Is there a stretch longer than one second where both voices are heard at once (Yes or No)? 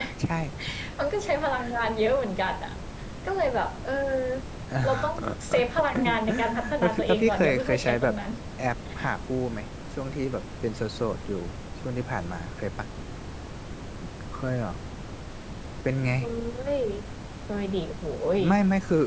Yes